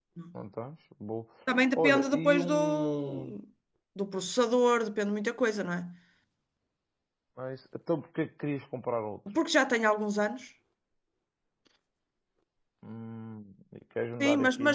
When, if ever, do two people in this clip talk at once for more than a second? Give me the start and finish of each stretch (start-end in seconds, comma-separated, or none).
1.8-3.2